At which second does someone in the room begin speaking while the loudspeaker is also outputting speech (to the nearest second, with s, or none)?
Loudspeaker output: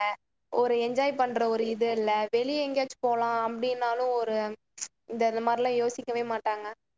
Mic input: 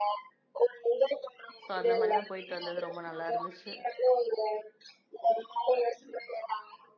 2 s